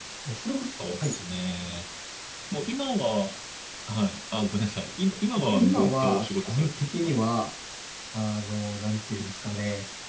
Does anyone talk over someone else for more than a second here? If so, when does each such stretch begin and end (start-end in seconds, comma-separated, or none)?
5.4-7.1